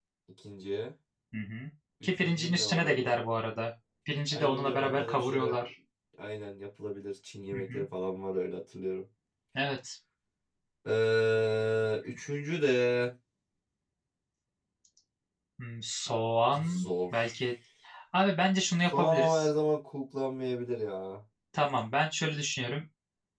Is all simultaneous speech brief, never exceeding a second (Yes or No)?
No